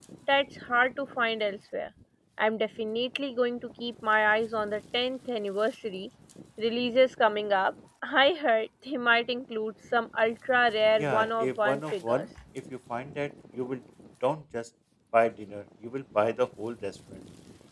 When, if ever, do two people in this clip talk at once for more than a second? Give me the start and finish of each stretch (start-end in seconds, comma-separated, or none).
11.0-12.2